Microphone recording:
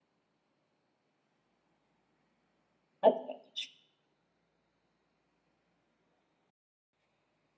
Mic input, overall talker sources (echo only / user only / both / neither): user only